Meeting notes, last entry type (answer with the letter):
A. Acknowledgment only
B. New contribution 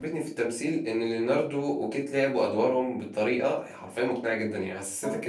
A